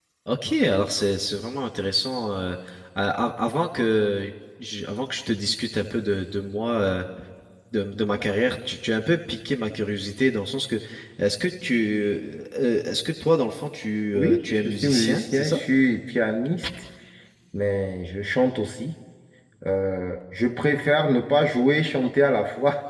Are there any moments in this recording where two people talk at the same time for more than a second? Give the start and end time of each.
14.1-15.6

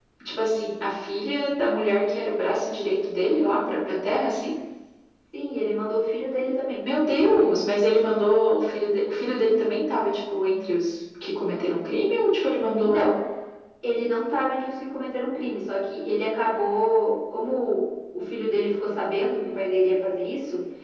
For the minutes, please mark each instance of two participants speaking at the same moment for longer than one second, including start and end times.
none

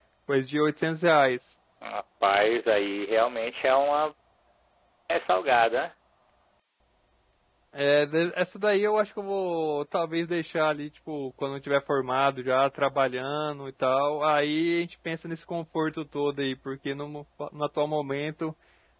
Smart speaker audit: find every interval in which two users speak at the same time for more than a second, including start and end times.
none

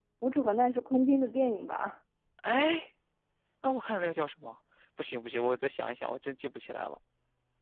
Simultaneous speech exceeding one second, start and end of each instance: none

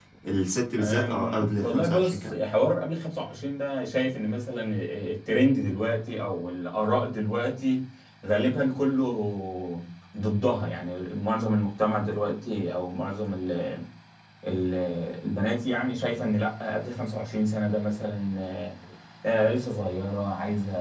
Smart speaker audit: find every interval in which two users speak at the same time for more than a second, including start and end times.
0.8-2.4

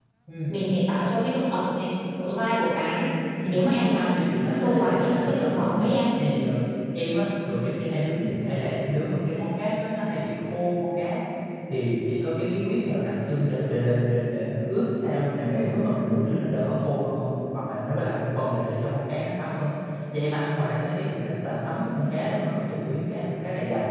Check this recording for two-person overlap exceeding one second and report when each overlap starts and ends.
4.1-5.9

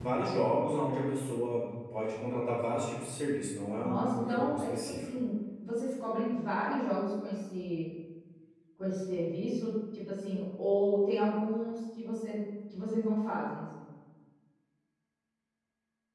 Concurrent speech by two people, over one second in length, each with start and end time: 3.8-5.1

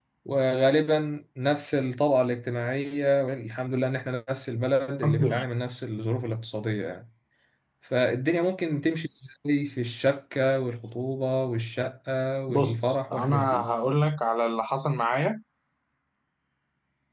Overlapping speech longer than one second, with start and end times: 12.5-13.8

